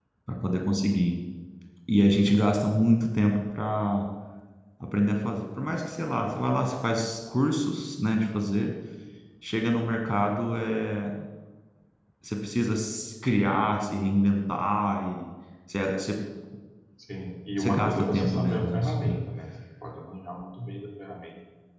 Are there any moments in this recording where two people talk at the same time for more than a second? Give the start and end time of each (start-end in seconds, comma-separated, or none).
17.6-19.2